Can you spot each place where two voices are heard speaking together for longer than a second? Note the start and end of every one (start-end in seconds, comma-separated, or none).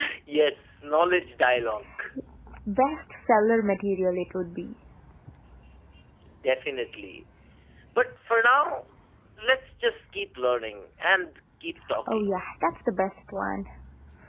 none